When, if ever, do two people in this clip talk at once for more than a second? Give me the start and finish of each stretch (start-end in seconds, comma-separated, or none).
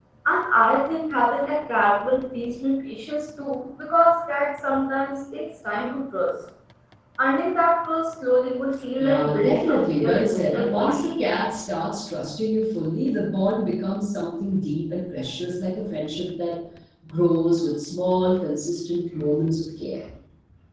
9.0-11.0